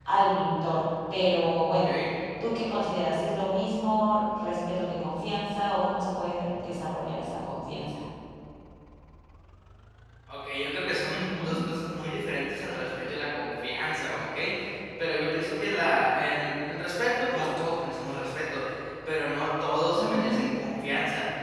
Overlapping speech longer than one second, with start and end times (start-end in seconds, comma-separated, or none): none